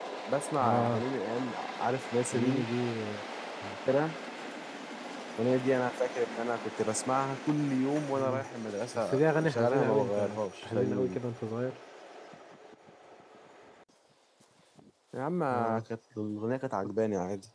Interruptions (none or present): present